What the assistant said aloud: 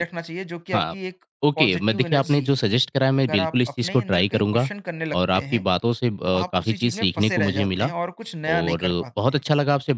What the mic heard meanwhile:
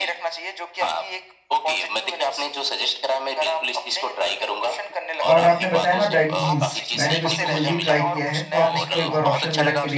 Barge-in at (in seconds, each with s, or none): 5.3 s